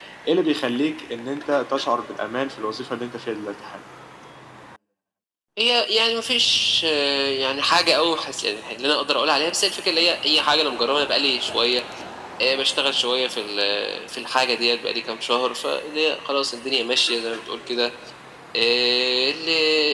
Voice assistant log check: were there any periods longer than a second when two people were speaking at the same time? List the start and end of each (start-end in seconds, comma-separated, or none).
none